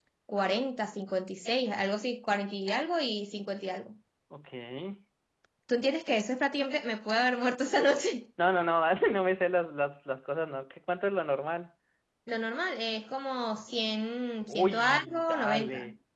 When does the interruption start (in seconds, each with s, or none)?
14.5 s